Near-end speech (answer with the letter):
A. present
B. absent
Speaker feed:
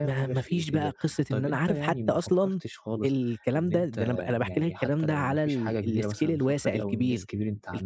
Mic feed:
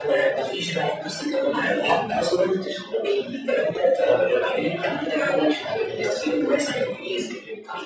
B